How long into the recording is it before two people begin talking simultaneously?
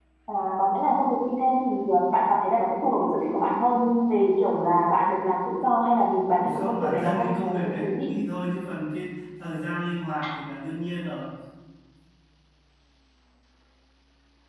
6 s

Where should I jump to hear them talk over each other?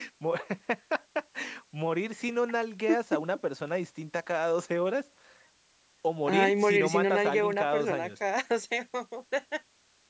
6 s

